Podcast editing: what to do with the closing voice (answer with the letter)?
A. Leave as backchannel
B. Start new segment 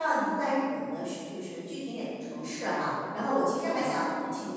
A